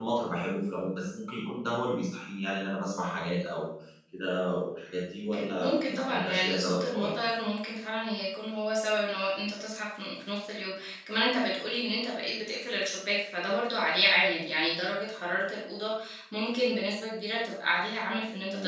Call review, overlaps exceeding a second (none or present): present